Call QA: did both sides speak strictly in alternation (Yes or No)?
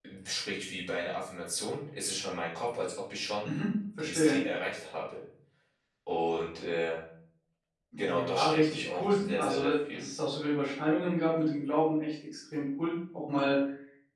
No